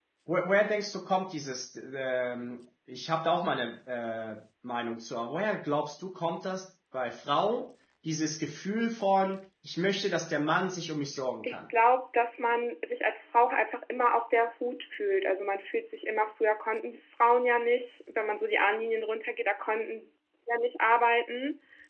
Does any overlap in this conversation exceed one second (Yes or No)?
No